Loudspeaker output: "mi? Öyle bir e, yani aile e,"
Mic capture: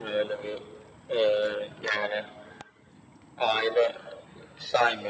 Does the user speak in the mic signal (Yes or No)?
No